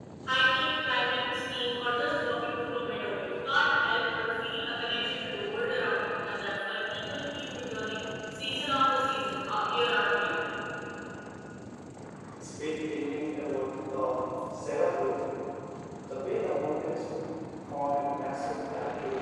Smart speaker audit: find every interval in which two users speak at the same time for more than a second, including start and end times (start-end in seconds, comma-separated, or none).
none